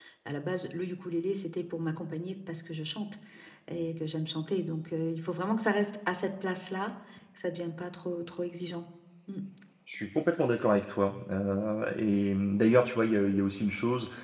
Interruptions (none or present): none